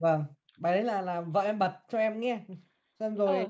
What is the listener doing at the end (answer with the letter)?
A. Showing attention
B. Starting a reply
A